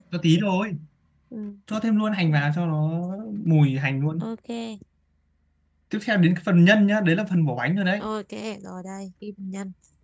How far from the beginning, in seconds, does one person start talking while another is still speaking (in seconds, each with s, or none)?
none